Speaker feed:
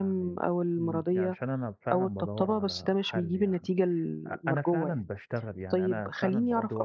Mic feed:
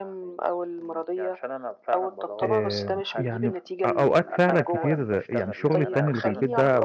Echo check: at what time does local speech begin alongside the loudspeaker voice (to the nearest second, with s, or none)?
2 s